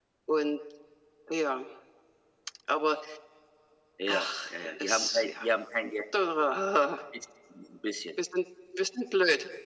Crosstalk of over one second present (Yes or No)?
Yes